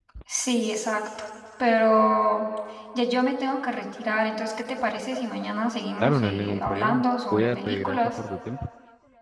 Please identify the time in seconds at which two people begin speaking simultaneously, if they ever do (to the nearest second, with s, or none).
6 s